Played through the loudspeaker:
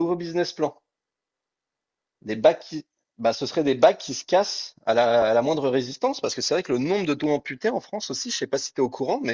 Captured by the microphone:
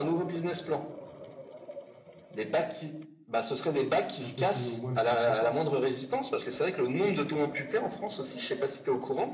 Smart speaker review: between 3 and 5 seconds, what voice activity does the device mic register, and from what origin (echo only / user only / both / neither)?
both